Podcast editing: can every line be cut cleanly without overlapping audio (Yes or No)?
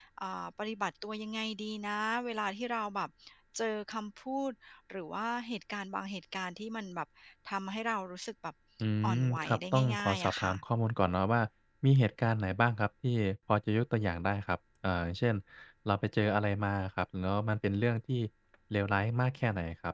No